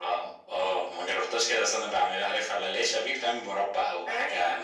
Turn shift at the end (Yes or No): Yes